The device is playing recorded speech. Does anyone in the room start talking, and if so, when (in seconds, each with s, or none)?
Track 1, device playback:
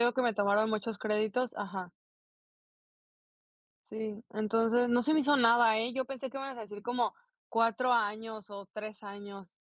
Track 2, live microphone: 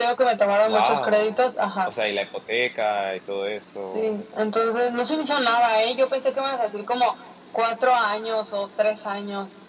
0.6 s